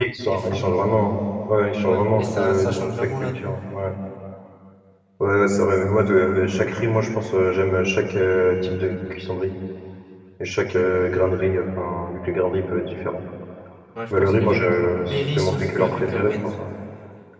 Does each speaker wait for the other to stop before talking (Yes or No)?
No